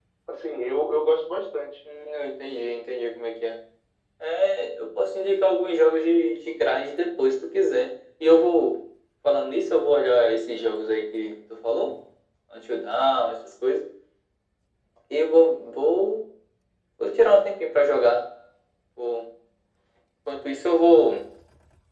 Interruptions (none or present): none